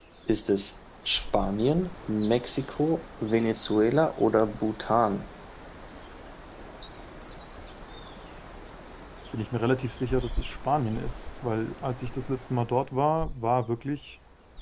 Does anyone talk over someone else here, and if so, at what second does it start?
none

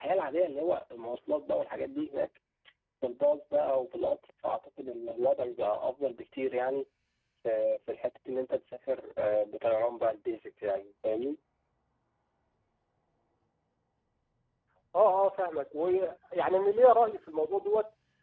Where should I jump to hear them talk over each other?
none

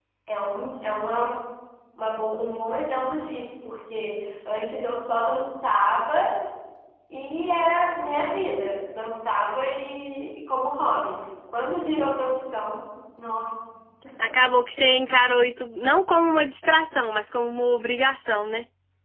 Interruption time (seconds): none

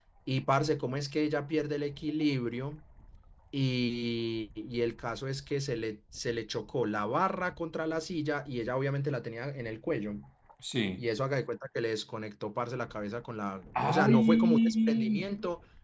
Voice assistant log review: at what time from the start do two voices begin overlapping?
13.8 s

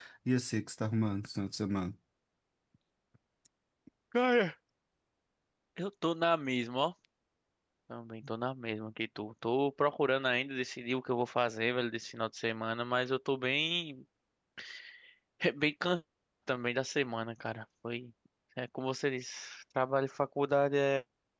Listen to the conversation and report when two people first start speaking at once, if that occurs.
none

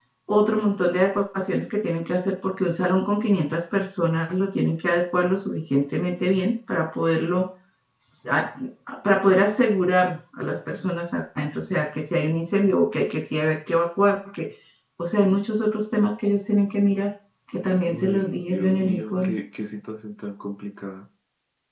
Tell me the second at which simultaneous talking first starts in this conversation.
17.8 s

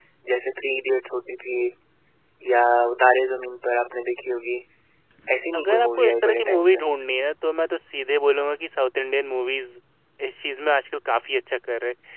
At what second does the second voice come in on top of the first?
5.5 s

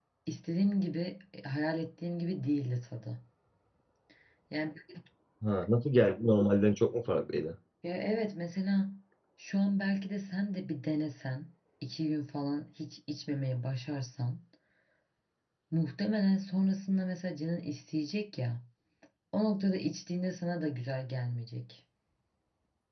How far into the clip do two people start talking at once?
none

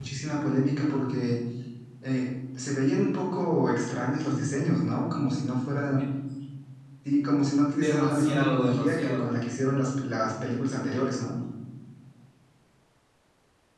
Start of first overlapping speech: 7.8 s

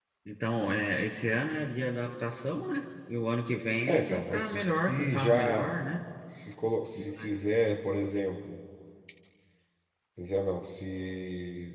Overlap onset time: 3.9 s

